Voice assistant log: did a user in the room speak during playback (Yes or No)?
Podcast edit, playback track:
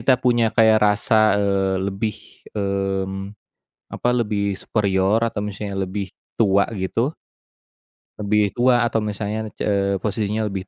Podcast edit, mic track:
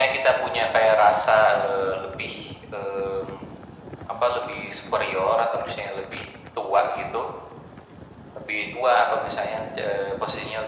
No